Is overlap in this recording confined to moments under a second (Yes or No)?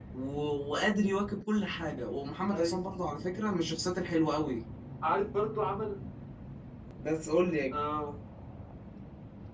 Yes